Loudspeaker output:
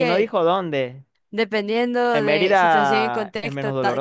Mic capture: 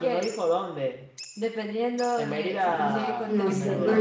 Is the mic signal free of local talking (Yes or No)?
No